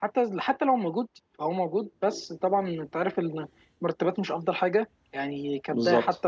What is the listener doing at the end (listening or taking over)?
taking over